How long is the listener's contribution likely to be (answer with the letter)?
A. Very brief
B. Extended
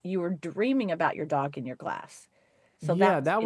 B